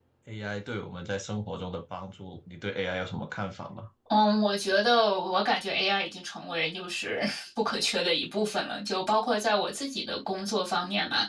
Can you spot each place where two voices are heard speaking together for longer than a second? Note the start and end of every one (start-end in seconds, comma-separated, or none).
none